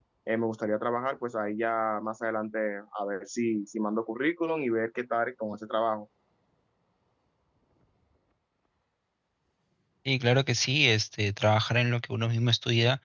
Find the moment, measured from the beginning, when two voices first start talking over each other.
none

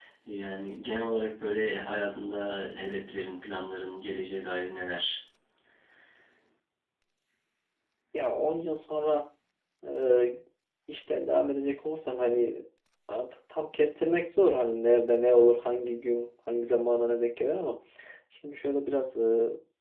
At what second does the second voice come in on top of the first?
none

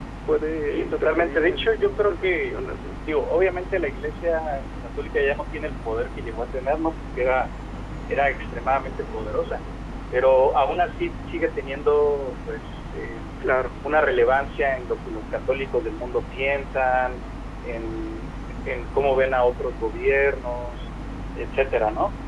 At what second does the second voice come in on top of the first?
0.6 s

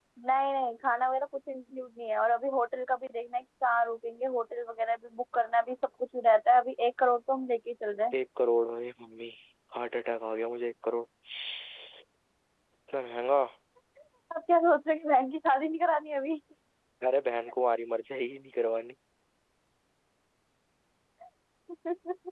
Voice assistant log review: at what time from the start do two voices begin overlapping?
none

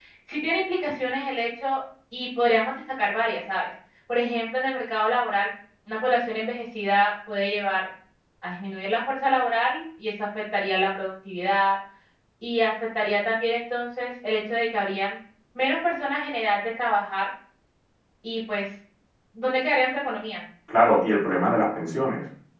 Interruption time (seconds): none

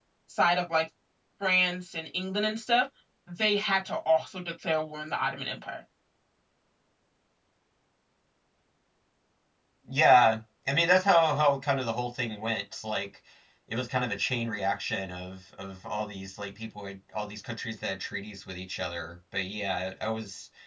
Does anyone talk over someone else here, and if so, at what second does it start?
none

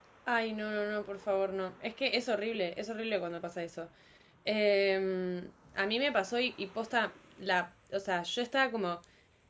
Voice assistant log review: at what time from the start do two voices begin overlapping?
none

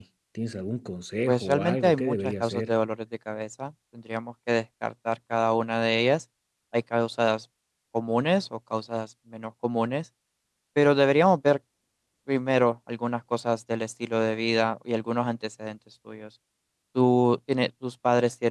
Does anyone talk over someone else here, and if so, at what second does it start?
1.3 s

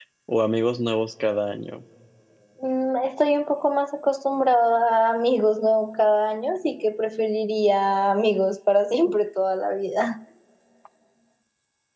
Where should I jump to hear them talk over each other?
none

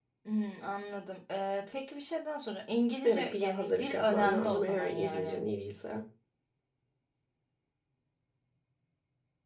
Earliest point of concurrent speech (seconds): 3.0 s

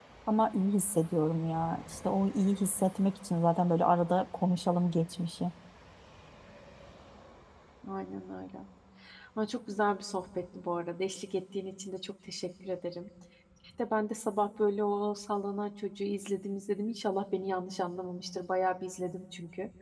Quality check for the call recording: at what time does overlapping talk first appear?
none

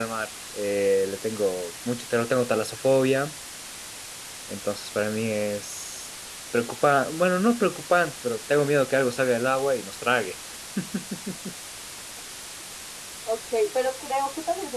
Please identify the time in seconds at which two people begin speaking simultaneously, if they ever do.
none

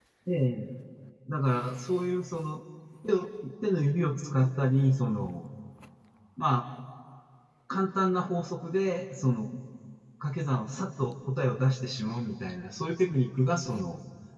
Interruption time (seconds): none

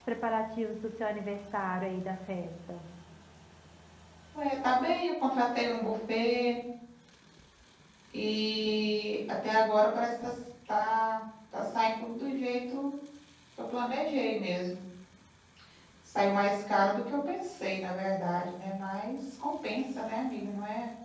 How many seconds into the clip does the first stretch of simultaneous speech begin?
none

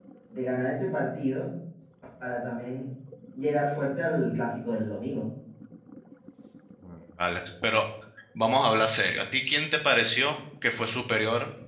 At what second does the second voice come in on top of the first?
none

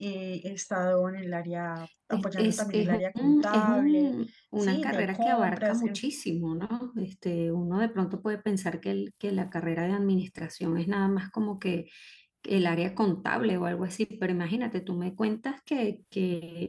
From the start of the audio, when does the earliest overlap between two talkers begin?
2.1 s

